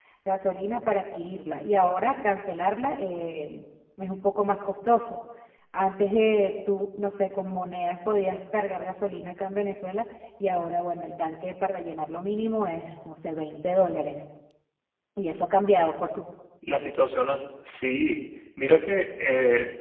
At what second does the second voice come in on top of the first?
none

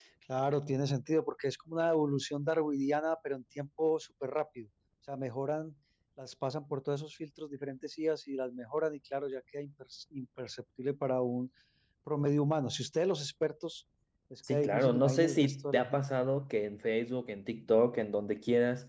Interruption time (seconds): 15 s

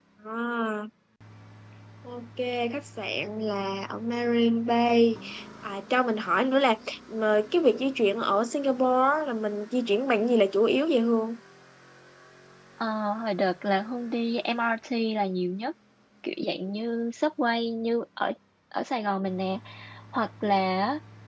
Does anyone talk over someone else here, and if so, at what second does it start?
none

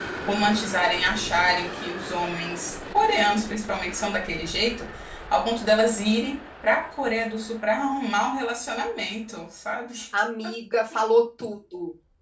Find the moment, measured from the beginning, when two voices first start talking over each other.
none

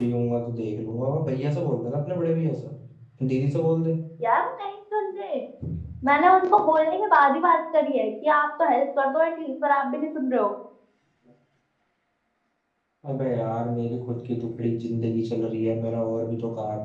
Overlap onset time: none

